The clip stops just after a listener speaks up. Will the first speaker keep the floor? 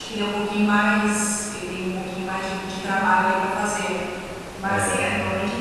Yes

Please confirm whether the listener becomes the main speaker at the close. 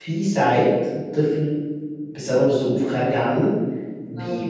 No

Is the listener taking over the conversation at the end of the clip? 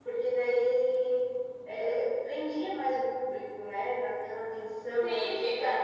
Yes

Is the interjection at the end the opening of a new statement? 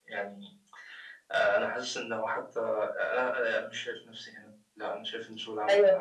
Yes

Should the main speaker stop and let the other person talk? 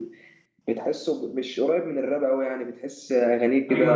Yes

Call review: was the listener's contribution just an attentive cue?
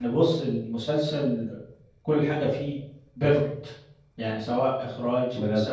Yes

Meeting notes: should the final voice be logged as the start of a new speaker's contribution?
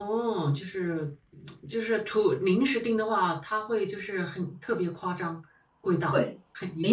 Yes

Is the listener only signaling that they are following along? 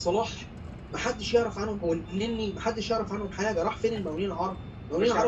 Yes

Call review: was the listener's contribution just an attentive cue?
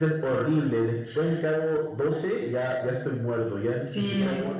No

